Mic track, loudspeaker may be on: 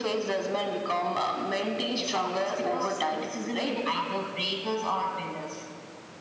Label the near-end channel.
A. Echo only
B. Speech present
A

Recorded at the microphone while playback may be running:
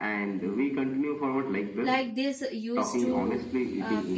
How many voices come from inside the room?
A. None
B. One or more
B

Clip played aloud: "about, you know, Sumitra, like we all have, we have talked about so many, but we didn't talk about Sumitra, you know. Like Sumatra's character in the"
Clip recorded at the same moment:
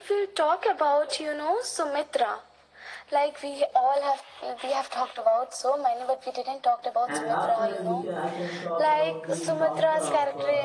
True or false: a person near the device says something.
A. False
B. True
B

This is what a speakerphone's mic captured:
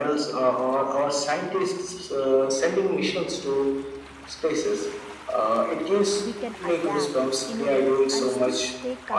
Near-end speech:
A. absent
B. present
B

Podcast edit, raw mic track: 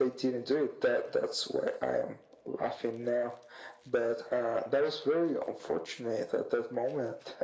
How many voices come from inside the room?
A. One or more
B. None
B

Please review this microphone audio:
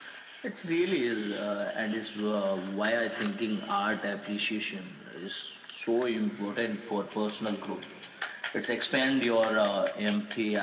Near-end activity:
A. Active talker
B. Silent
B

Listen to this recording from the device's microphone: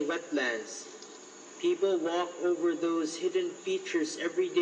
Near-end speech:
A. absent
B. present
A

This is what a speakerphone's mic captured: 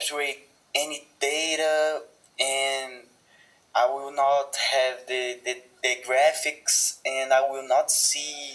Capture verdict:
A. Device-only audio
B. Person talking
A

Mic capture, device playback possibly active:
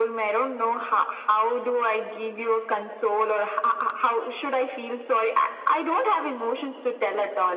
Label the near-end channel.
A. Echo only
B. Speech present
A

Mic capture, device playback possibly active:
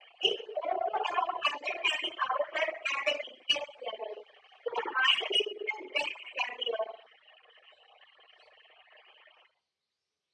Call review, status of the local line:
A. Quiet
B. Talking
A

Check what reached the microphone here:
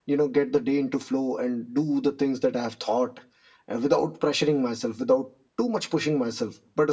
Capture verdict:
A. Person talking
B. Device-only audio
B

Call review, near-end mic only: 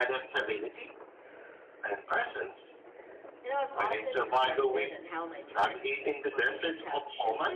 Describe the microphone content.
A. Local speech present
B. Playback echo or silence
A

